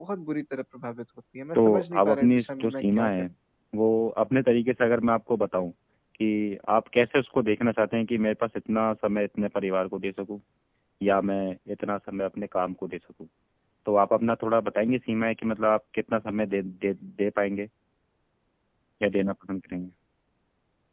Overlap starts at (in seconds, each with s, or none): 1.6 s